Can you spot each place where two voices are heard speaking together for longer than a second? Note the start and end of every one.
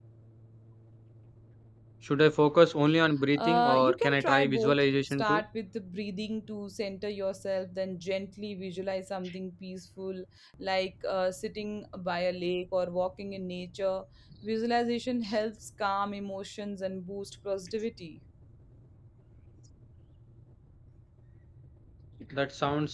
3.4-5.4

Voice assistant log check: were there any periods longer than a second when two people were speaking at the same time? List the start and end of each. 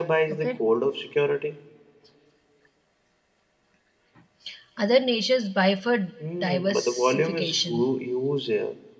6.4-7.9

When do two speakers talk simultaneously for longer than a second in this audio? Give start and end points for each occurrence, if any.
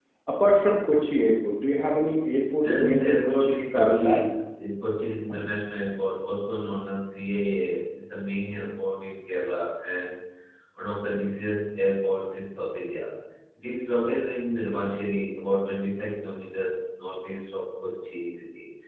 2.6-4.1

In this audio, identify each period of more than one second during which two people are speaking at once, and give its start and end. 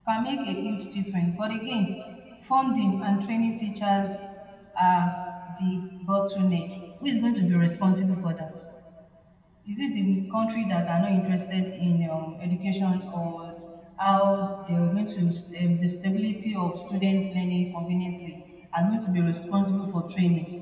none

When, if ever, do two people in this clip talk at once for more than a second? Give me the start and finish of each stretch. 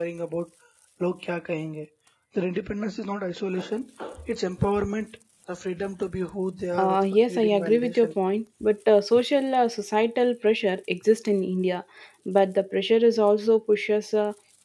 6.8-8.1

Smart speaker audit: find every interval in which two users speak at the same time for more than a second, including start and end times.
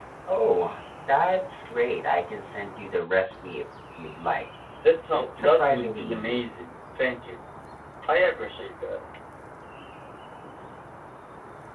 5.1-6.4

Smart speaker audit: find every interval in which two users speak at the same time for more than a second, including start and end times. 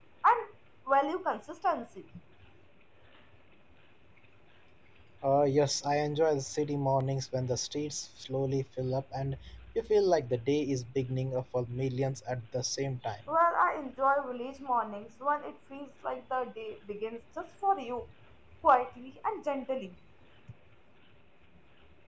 none

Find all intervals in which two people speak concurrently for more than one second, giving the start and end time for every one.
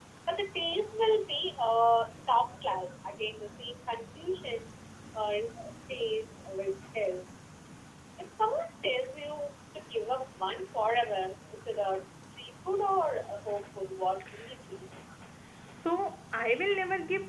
none

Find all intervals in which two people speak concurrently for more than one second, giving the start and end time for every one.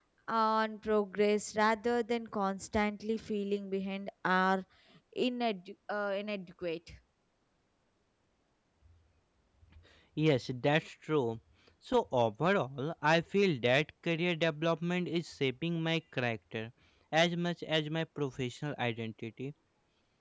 none

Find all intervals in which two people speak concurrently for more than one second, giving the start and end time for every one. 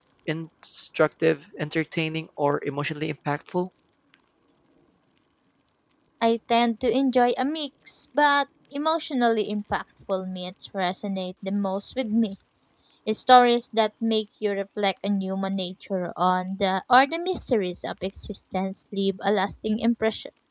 none

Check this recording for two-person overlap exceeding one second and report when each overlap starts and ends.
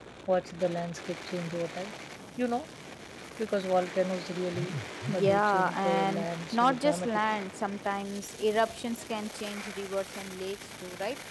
5.1-7.4

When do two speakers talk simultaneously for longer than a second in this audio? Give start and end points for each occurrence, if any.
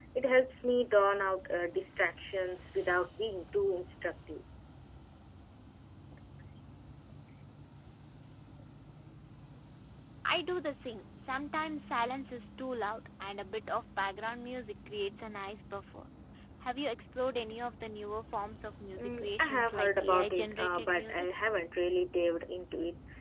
19.0-21.3

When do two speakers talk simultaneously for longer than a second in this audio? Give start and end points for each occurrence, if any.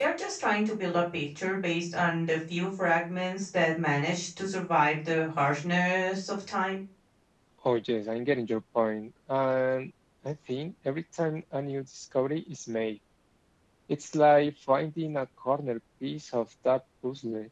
none

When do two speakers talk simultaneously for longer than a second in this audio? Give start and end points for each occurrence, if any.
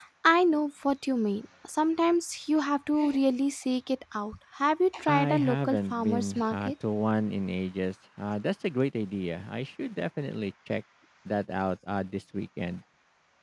5.1-6.7

